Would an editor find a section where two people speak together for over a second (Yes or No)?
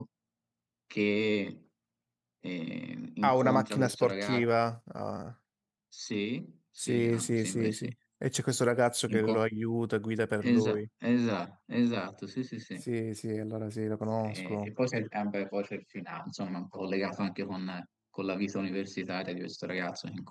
Yes